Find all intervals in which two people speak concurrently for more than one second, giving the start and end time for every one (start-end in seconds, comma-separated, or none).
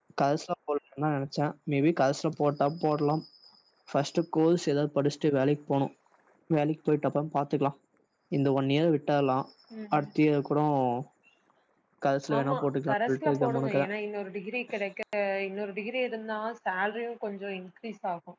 12.4-13.8